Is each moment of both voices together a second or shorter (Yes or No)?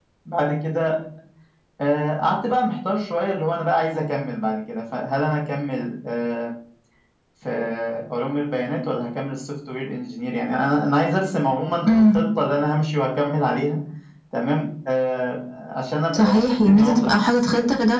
No